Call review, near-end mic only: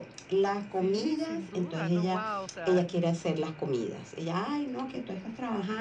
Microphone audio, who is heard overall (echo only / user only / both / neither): both